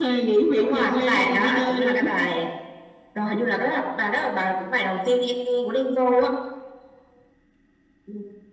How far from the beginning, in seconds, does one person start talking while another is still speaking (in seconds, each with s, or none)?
0.6 s